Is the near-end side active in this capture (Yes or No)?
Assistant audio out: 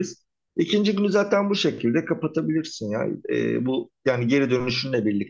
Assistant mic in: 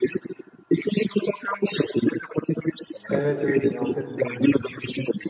Yes